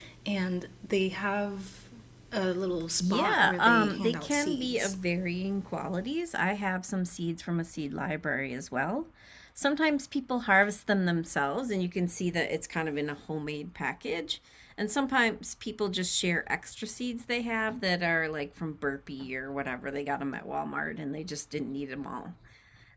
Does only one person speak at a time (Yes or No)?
No